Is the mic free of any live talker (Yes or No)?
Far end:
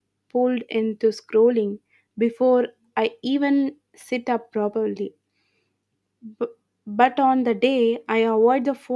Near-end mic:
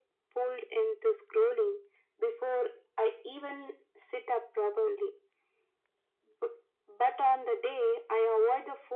Yes